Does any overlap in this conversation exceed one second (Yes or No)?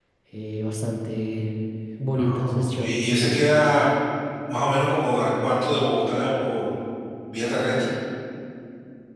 Yes